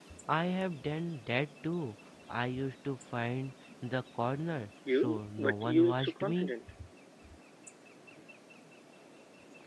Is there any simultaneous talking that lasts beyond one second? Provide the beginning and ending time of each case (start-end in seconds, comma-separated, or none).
4.9-6.5